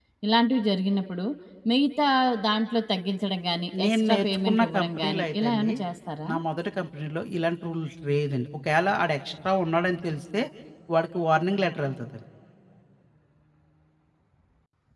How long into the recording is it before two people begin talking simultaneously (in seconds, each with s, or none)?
3.7 s